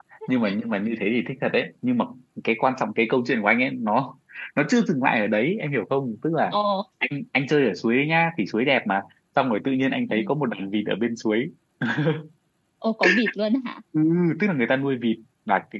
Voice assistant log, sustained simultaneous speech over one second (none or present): none